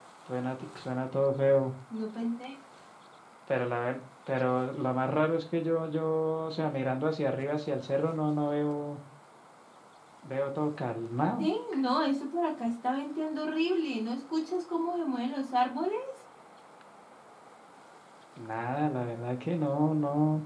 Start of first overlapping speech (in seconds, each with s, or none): none